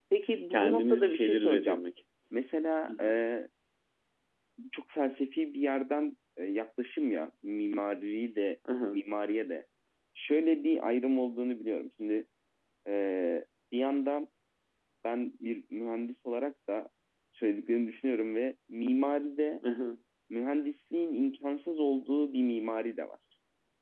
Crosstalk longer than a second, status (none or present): present